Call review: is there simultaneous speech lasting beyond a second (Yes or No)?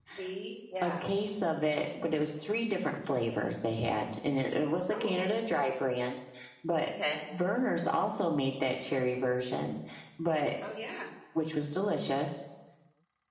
No